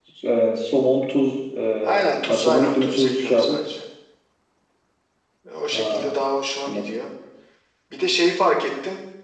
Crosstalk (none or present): present